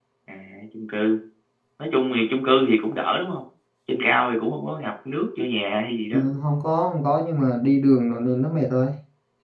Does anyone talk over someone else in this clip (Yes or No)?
No